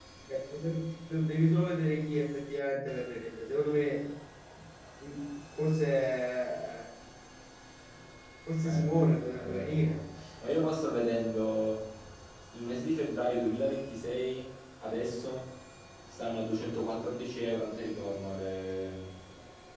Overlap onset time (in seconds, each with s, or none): 8.6 s